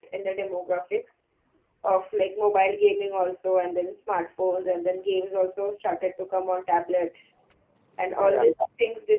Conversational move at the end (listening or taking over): listening